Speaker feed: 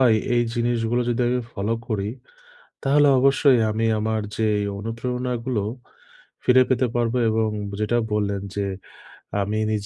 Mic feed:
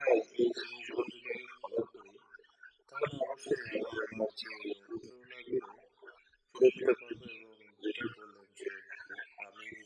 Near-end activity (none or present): none